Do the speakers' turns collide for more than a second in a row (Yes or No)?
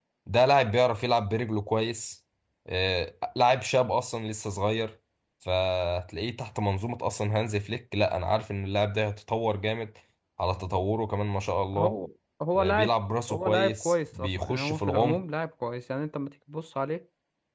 Yes